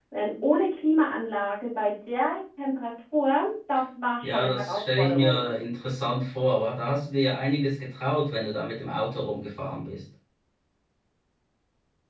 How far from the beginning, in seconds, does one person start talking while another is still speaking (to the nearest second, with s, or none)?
4 s